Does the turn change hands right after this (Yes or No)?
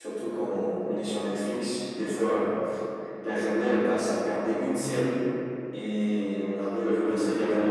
Yes